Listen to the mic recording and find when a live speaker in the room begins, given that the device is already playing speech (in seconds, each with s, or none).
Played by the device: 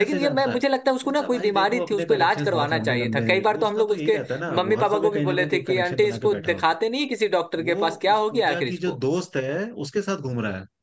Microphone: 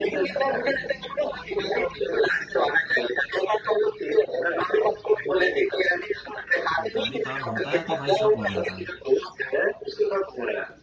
6.8 s